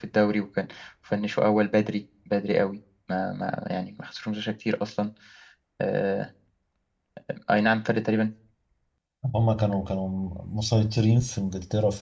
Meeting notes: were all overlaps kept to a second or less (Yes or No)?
Yes